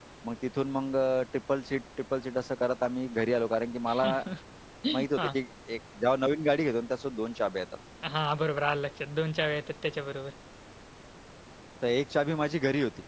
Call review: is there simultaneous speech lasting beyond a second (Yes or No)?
No